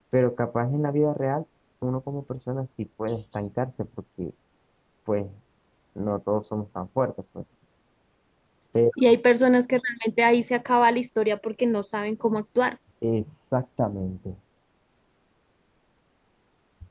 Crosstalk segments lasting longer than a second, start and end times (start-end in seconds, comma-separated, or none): none